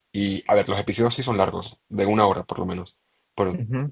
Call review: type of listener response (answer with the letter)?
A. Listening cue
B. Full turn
A